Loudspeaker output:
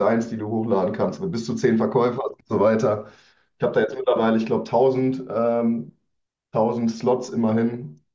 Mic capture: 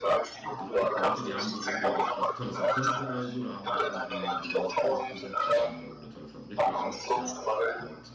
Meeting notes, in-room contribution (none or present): present